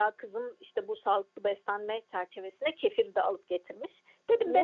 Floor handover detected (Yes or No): No